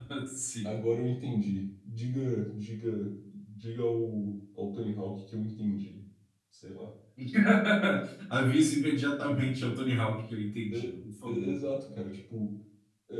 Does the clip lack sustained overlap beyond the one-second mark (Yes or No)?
Yes